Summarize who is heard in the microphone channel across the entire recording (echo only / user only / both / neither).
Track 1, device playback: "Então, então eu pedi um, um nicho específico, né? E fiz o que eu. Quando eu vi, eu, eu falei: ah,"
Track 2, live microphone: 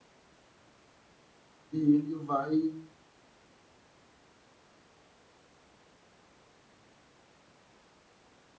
user only